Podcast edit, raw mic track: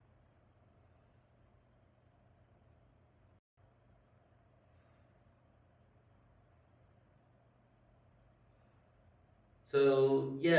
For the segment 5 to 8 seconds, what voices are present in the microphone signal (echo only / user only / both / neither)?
neither